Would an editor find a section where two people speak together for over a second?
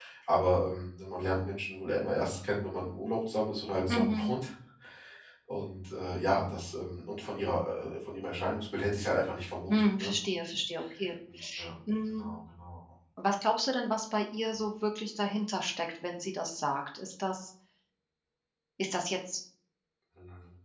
No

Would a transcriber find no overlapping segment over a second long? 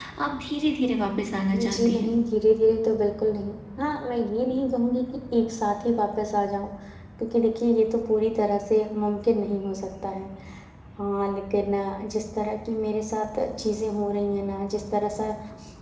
Yes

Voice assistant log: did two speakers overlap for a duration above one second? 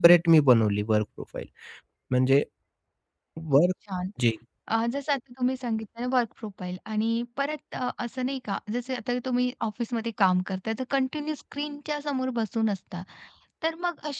No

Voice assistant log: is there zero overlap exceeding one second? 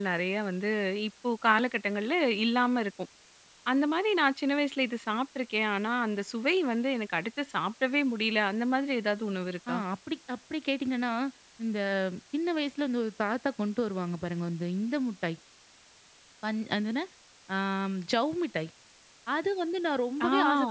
Yes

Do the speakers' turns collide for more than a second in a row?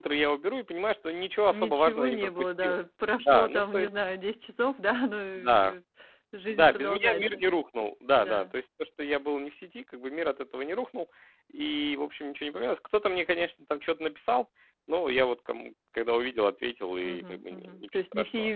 Yes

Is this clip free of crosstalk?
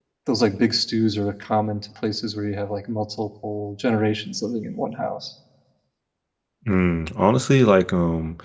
Yes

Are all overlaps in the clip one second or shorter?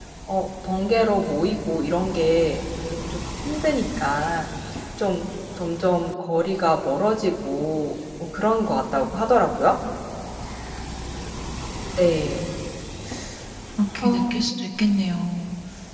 Yes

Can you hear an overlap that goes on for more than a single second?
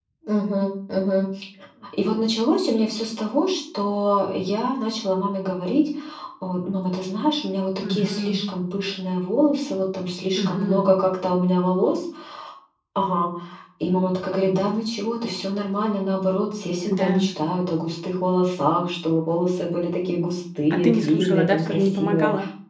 Yes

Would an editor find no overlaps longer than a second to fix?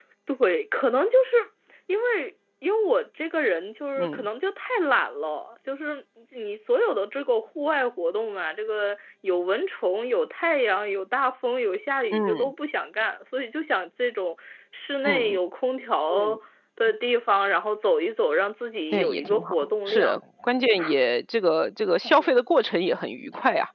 No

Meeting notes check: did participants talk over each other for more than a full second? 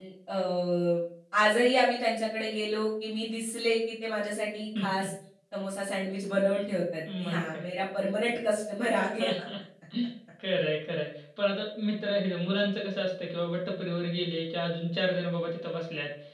No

